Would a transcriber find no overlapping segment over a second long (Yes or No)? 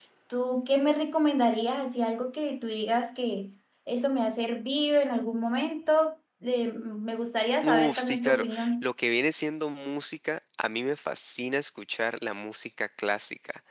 No